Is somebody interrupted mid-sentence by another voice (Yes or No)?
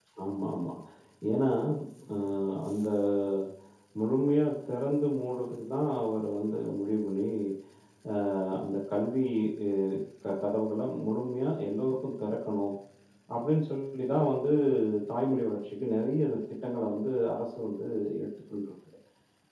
No